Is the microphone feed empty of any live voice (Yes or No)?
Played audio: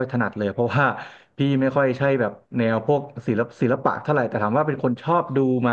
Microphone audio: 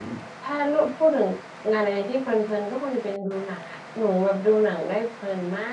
No